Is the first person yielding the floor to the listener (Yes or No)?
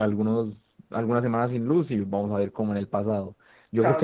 Yes